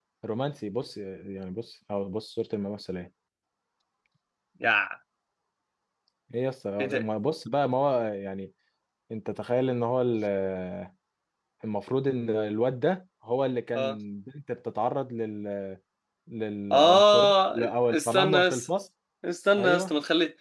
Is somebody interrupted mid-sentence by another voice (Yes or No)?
Yes